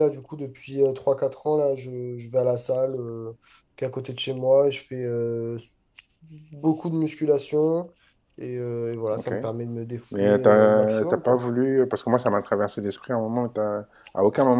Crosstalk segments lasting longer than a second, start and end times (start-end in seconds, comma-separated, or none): 10.2-11.4